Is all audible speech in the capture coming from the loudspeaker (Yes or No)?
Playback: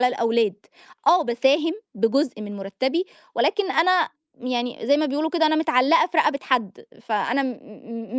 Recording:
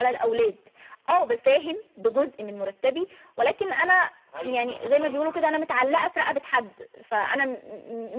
No